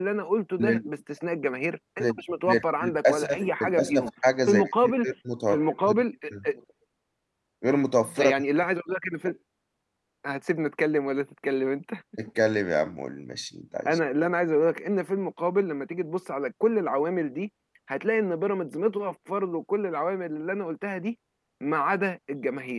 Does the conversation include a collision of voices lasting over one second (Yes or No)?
Yes